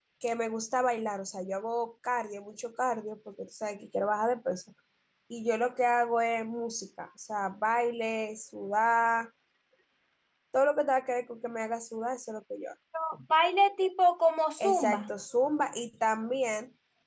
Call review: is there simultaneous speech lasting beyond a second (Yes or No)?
No